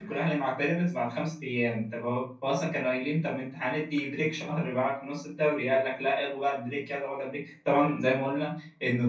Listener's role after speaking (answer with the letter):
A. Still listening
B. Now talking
A